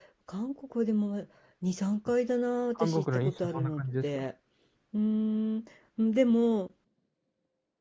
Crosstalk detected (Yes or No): Yes